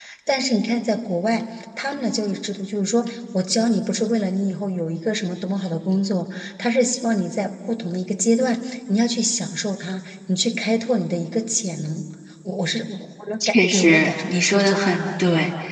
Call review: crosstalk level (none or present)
present